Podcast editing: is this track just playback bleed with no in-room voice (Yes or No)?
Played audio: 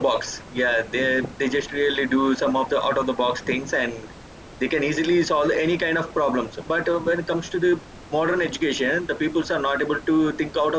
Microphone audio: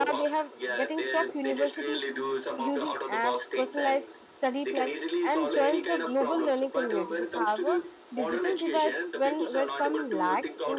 No